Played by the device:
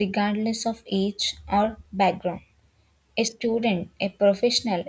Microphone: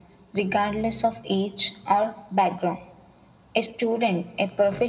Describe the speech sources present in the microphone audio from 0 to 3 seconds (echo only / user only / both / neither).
echo only